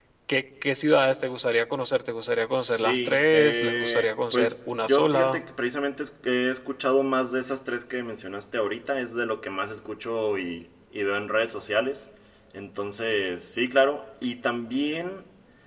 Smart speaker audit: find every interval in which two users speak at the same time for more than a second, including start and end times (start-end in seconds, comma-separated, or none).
2.6-5.4